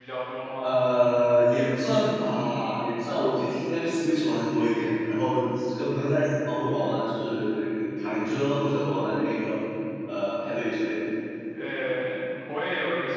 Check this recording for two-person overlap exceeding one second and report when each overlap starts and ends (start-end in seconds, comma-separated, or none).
none